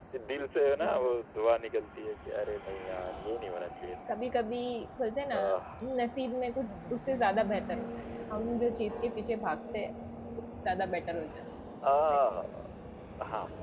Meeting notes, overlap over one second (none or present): none